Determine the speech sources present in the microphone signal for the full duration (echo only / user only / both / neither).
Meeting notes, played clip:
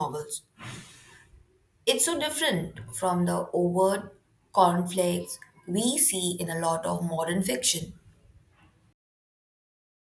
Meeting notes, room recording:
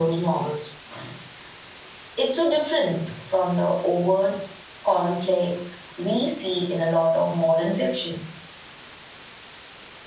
echo only